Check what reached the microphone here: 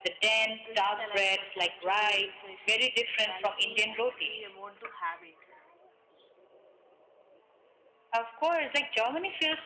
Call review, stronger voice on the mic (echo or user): echo